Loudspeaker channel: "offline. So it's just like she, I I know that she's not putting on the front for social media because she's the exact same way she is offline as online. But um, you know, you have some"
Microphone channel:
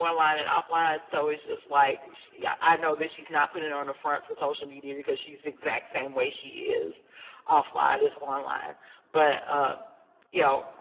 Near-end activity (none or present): none